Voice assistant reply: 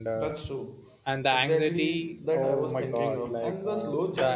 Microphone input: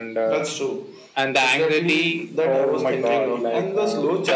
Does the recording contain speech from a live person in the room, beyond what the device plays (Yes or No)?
No